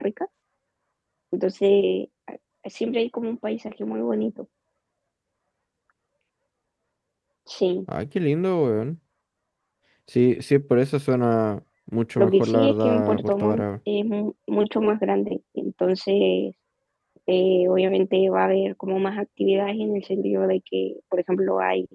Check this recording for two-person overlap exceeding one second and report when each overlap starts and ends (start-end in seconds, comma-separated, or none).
12.2-13.6